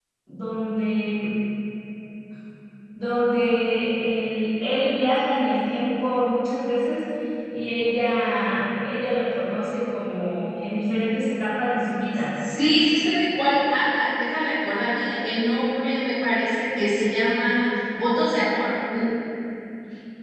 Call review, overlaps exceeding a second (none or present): none